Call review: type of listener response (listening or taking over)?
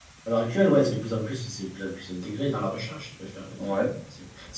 listening